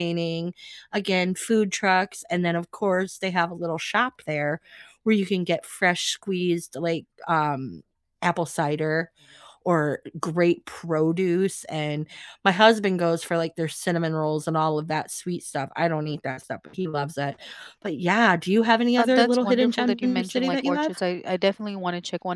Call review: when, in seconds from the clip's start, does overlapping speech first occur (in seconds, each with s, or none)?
19.0 s